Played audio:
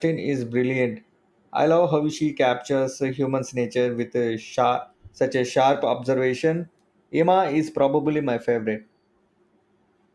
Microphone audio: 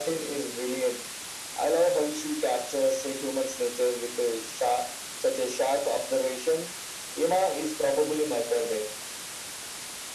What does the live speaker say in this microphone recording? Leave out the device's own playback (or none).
none